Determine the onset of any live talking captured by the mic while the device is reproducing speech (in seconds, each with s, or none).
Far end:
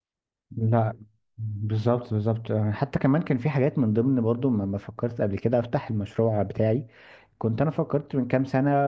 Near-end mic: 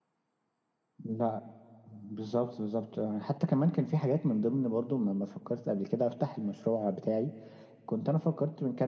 none